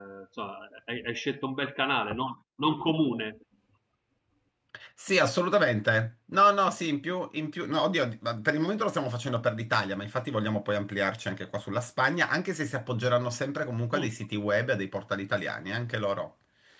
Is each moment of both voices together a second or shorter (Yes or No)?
Yes